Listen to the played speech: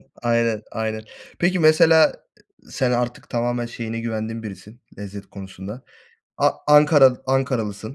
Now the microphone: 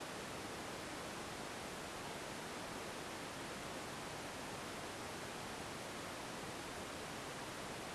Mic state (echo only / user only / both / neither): neither